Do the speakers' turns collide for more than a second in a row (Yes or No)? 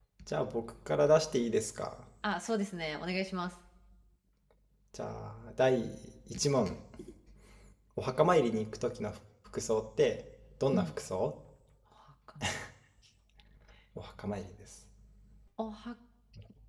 No